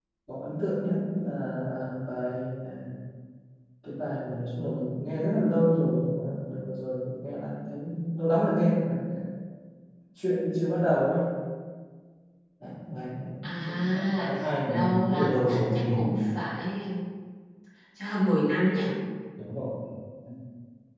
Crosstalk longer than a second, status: present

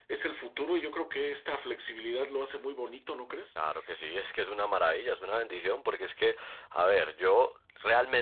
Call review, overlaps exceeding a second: none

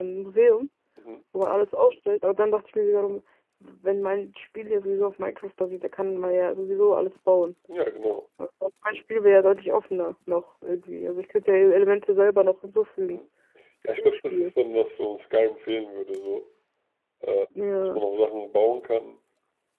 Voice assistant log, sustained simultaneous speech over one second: none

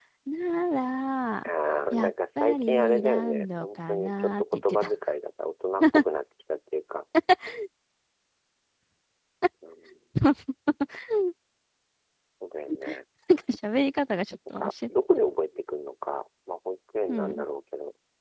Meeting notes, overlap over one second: present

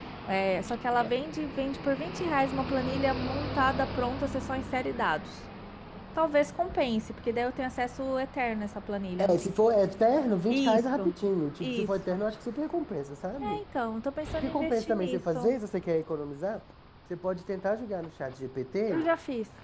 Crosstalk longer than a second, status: present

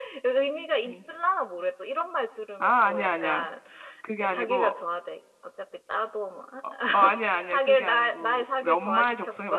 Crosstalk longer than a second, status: present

